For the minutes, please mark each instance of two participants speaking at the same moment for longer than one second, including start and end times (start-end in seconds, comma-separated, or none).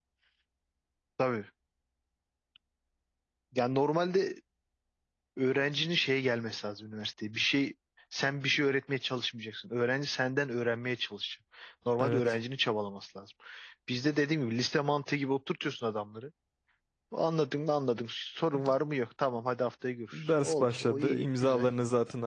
20.1-21.6